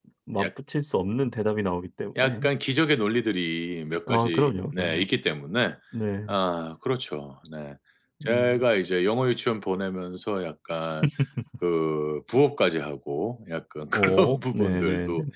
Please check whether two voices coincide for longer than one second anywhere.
Yes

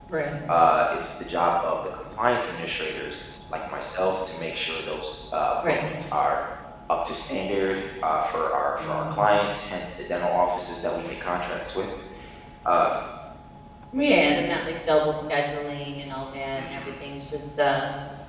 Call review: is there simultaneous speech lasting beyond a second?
No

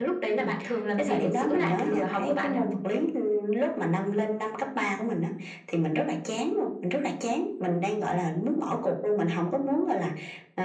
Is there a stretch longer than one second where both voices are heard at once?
Yes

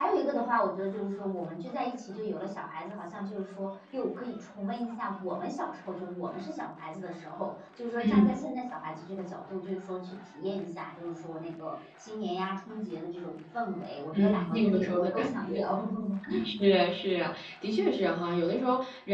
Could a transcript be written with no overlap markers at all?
No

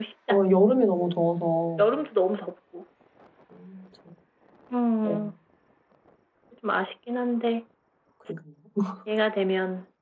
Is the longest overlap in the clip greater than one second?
No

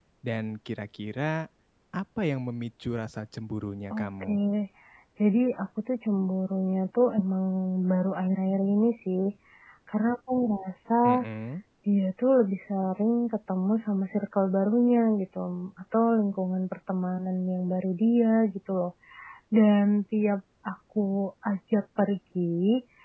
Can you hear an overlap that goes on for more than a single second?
No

